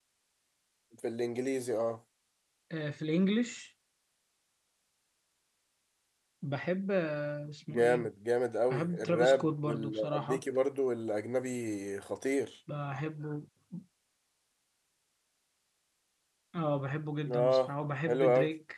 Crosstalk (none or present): present